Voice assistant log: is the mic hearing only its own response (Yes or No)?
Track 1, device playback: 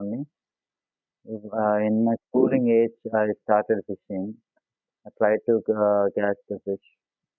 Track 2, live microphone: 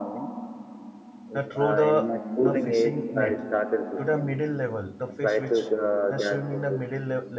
No